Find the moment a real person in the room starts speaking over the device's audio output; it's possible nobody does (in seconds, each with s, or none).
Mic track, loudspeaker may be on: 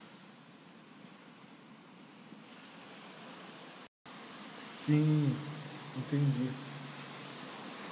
4.7 s